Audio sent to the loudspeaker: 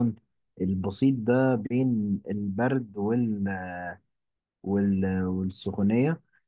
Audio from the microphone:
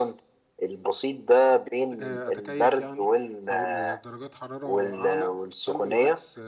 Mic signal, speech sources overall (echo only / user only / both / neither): both